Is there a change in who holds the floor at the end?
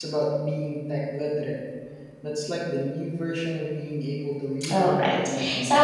Yes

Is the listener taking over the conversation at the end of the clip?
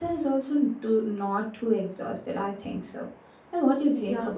Yes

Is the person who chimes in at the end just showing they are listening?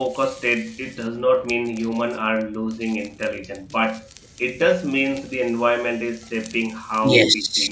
No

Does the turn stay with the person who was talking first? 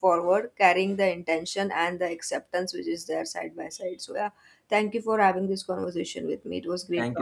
No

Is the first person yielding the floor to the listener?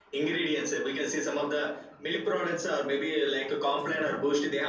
No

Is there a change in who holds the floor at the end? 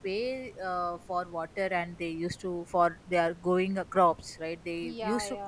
No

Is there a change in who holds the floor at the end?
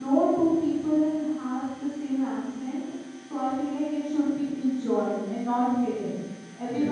No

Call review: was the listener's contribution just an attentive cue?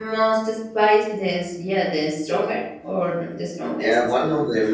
No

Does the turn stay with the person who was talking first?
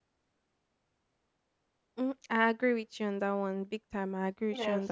Yes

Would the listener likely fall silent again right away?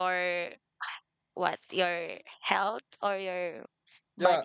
No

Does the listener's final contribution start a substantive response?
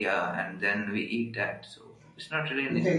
Yes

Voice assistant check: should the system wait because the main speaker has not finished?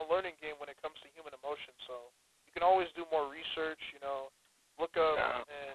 Yes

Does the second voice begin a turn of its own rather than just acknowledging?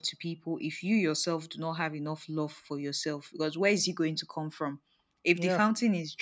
No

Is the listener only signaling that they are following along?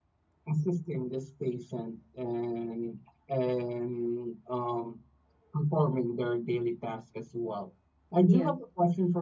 Yes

